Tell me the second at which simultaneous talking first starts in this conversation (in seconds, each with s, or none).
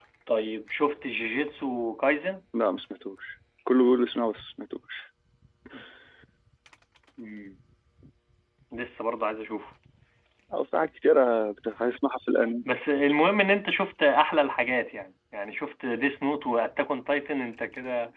none